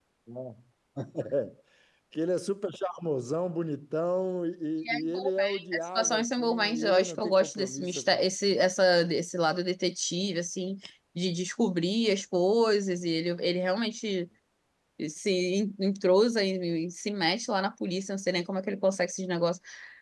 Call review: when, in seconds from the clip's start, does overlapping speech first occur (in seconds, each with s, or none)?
4.8 s